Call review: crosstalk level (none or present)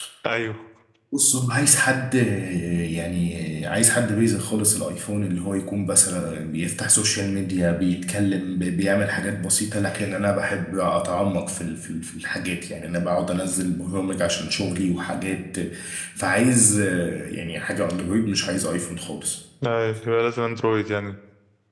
none